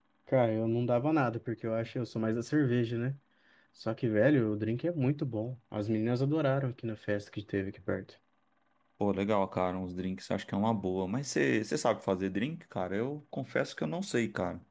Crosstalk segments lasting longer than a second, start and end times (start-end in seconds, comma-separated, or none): none